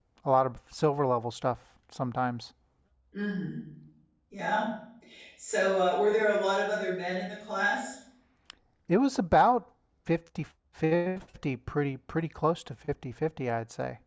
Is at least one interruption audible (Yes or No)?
No